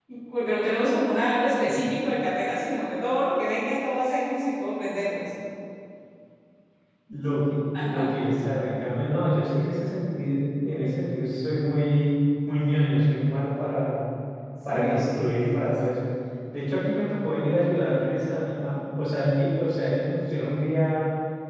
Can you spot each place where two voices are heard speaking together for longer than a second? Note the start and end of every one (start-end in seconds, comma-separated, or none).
none